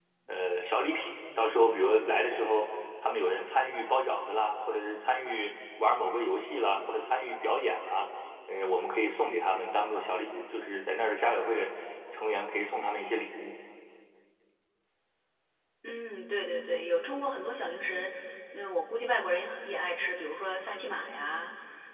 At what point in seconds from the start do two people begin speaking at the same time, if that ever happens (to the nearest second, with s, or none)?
none